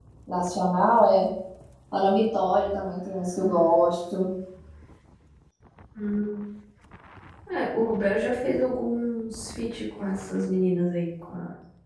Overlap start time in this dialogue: none

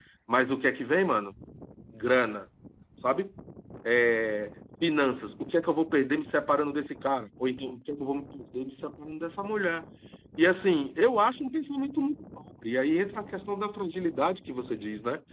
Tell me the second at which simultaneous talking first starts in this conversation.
none

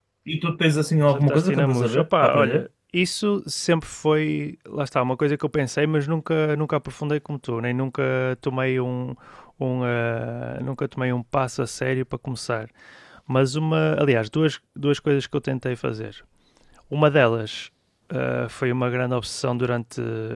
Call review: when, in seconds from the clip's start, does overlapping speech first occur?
1.1 s

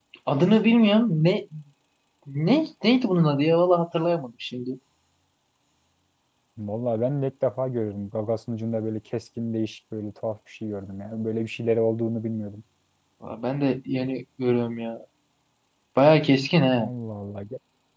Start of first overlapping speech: none

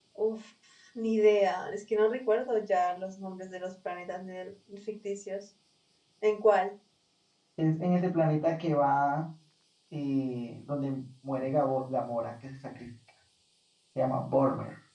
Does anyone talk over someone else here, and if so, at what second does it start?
none

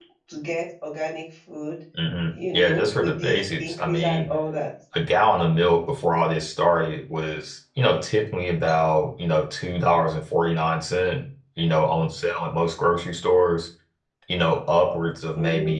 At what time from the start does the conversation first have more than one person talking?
2.3 s

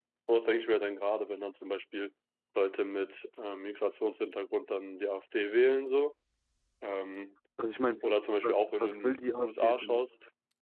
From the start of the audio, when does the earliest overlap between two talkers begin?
8.4 s

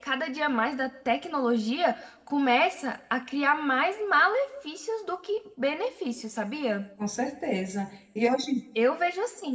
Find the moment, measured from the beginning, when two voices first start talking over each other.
none

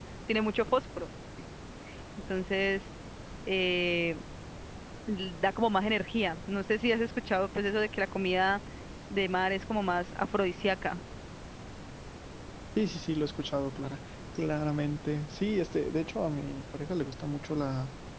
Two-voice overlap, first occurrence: none

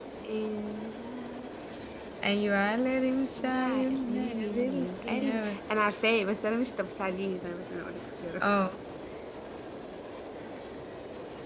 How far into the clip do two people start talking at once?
3.4 s

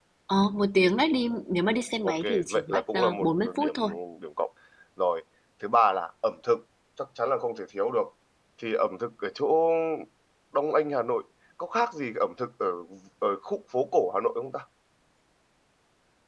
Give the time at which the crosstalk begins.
2.0 s

